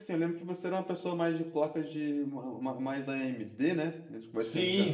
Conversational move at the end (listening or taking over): taking over